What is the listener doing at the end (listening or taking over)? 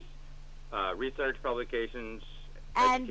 taking over